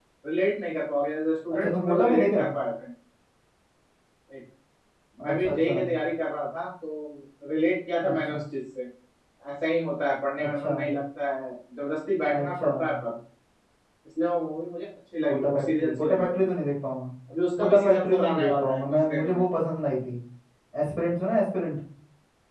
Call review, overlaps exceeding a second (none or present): present